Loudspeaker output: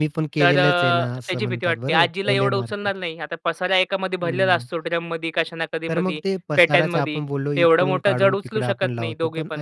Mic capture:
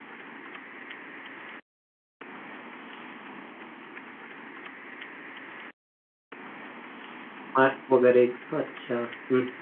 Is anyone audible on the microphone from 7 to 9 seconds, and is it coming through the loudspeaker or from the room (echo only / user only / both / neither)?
user only